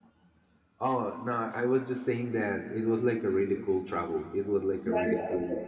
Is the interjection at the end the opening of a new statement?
Yes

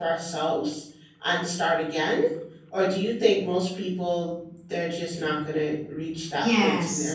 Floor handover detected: Yes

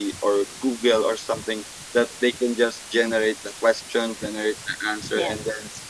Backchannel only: Yes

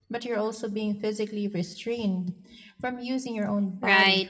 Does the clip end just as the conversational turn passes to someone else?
Yes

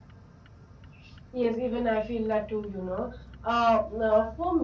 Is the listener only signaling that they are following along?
Yes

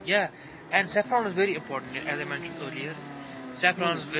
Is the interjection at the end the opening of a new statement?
No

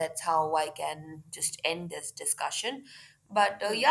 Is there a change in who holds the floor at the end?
No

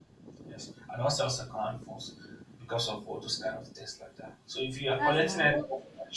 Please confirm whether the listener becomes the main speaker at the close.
No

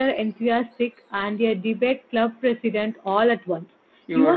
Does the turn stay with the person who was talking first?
No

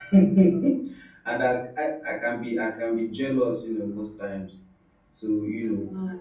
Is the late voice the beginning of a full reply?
No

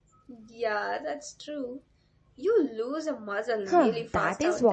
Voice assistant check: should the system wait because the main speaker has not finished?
No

